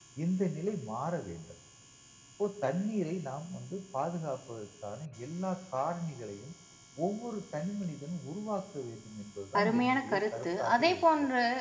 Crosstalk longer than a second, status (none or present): present